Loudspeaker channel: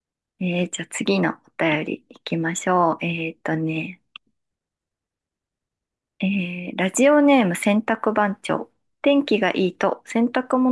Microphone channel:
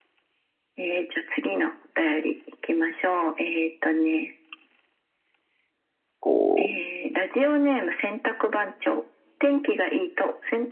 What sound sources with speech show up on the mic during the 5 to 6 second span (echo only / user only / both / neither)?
neither